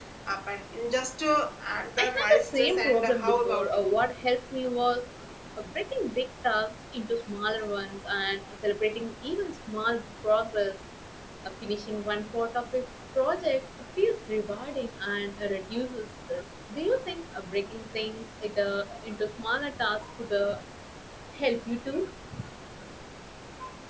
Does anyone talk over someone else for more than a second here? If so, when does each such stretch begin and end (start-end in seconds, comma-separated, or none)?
2.0-4.0